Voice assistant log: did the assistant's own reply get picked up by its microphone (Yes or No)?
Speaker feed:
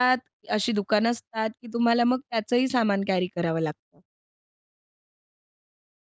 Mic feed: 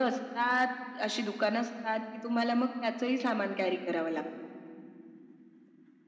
Yes